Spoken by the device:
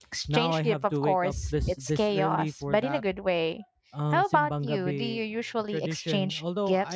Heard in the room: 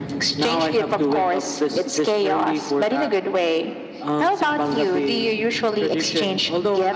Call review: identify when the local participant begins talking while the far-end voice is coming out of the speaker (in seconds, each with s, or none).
none